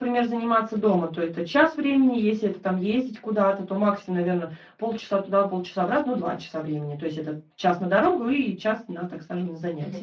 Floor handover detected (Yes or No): Yes